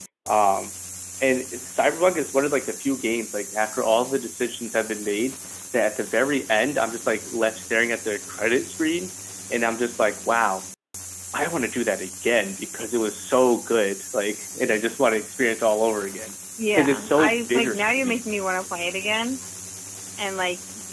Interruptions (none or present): present